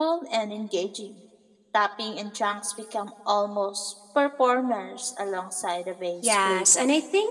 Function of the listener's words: taking over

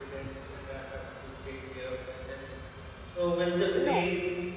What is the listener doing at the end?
listening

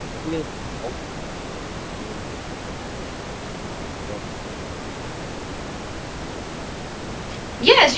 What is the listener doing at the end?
taking over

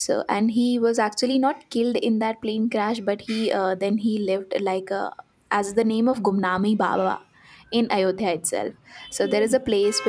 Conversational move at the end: listening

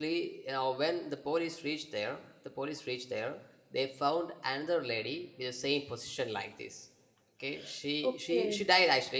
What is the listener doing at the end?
listening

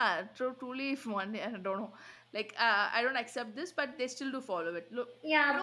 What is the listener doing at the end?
taking over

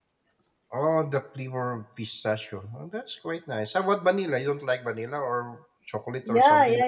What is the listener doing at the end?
taking over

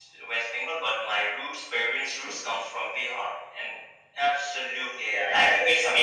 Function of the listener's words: taking over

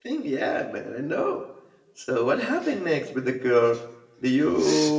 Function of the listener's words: listening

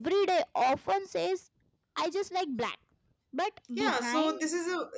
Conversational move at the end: taking over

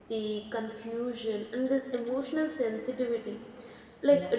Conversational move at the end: listening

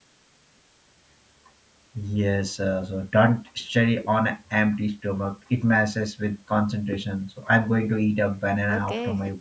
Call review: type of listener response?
taking over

